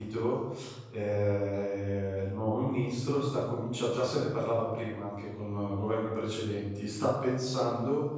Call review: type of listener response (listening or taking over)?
listening